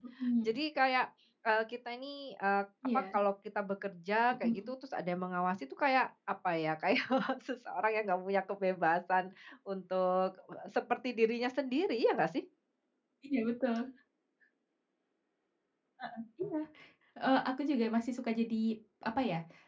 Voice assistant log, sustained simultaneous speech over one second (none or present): none